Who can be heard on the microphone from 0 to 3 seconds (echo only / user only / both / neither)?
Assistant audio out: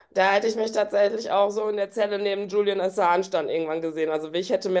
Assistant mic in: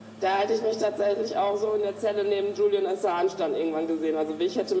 echo only